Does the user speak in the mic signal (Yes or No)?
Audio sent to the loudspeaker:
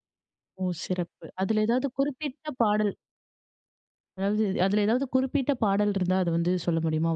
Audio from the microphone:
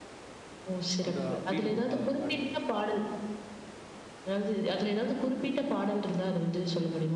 Yes